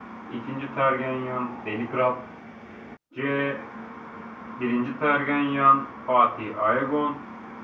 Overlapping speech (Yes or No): No